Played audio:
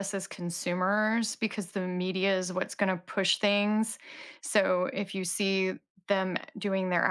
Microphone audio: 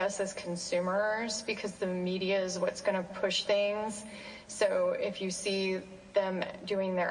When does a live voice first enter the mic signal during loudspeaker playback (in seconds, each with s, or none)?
none